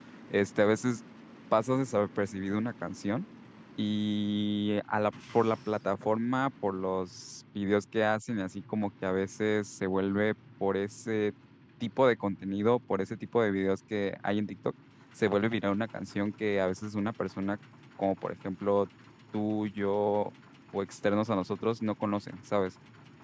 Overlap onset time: none

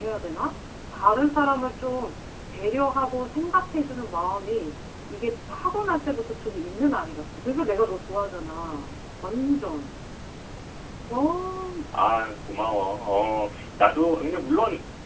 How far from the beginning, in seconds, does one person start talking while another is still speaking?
none

